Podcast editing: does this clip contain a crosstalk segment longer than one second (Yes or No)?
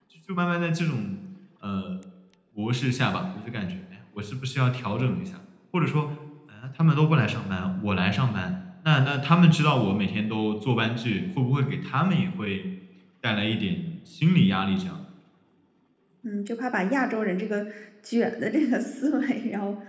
No